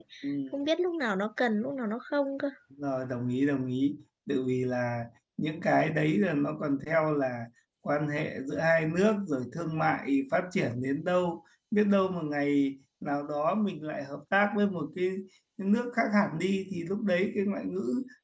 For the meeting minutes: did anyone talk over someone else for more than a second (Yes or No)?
No